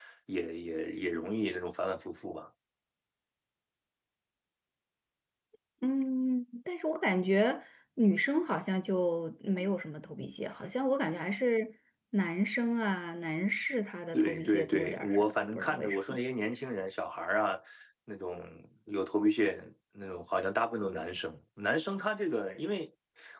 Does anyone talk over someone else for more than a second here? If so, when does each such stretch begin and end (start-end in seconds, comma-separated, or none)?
14.1-16.2